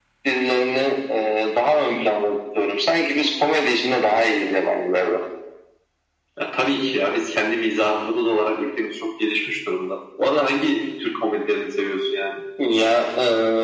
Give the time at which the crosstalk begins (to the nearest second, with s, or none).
none